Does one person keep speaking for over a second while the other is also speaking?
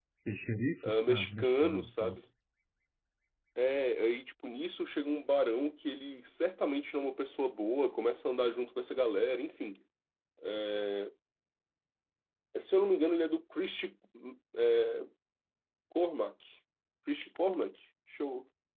Yes, from 0.8 s

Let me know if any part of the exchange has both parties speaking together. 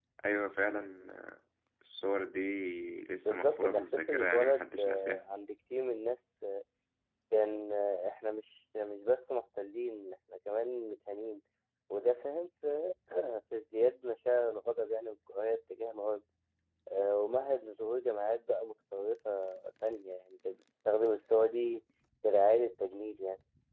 Yes, from 3.2 s

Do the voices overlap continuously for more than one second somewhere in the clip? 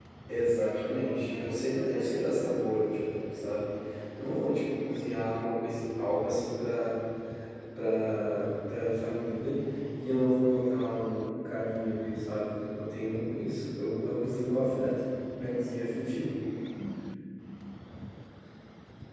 Yes, from 0.7 s

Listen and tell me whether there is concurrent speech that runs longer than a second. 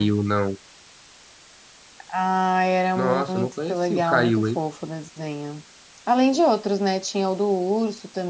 Yes, from 3.0 s

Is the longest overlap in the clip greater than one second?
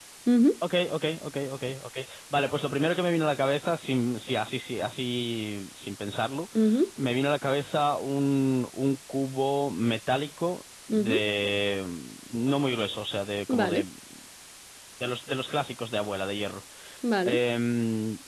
No

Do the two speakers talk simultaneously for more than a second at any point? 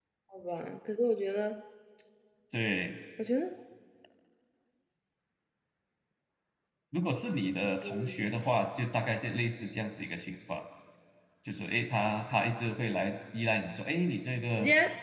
No

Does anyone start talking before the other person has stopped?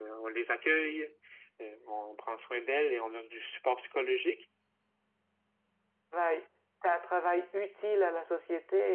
No

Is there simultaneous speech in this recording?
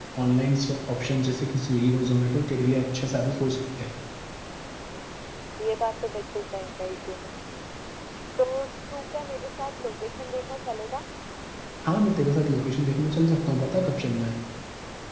No

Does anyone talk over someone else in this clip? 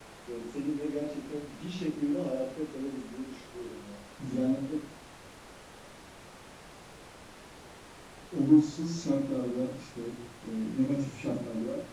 No

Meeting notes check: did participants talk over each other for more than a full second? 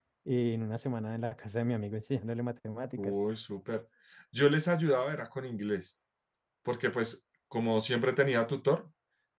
No

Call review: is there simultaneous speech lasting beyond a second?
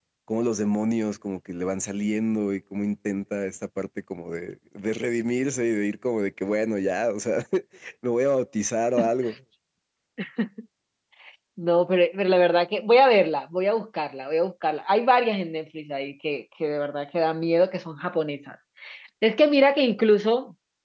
No

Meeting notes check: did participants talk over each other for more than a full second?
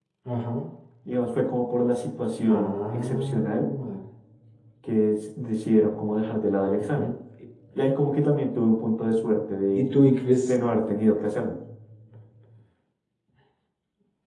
Yes, from 2.5 s

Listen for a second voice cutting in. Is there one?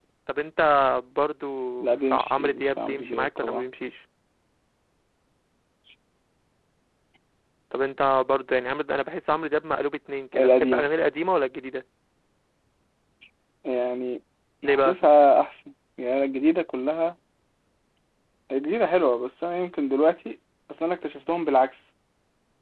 Yes, from 2.0 s

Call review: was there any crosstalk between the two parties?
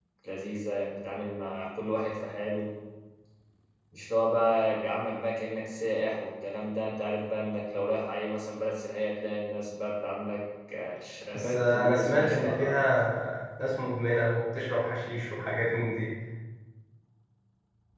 Yes, from 11.3 s

